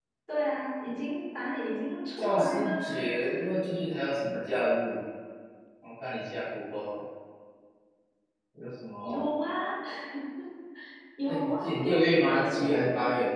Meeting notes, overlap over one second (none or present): present